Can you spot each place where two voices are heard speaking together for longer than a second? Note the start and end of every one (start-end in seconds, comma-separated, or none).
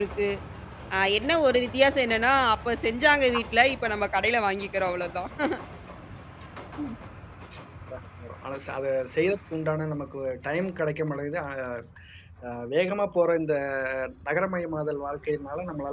none